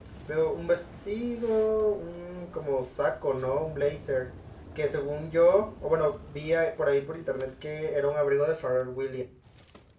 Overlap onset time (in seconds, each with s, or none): none